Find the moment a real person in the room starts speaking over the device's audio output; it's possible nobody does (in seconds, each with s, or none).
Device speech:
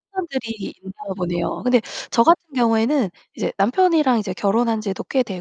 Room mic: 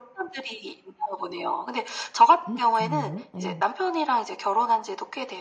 2.5 s